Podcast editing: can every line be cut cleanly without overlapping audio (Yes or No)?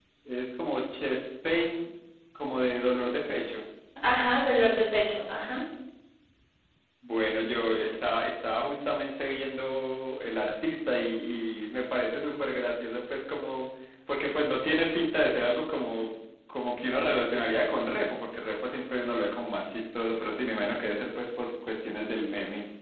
Yes